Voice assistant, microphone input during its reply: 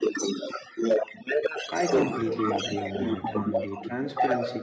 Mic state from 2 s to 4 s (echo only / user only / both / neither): both